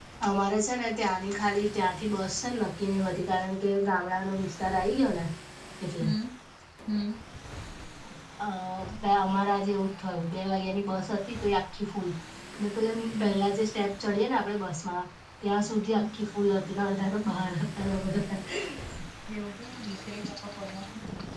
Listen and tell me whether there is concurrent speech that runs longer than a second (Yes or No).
No